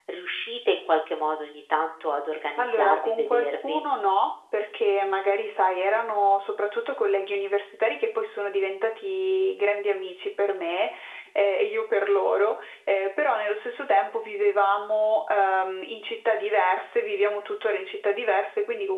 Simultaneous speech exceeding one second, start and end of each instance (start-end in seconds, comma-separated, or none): 2.6-3.8